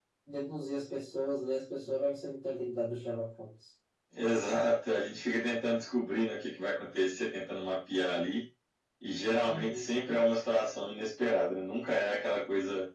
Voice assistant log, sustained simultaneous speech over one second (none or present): none